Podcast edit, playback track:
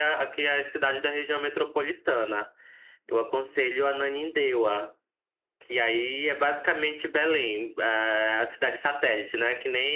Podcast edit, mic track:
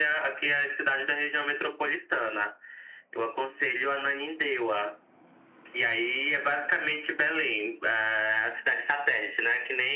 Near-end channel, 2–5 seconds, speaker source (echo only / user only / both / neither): echo only